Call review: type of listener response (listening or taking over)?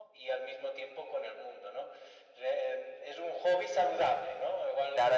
taking over